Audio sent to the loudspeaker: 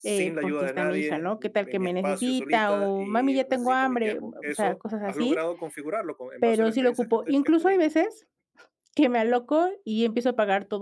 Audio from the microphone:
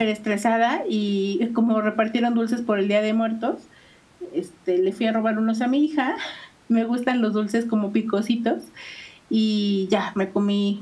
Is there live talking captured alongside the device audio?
Yes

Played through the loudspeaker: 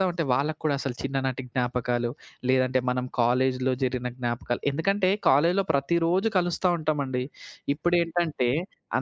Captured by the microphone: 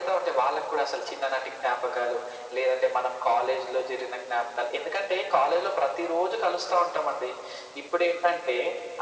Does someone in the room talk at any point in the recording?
No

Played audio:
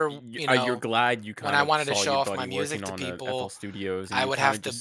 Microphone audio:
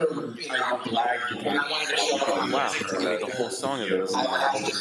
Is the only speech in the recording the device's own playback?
No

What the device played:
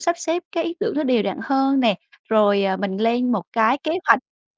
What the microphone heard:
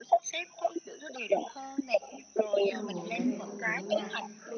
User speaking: Yes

